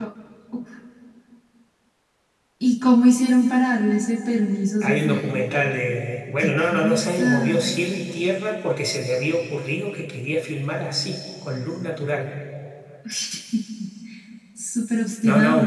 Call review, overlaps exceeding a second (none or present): present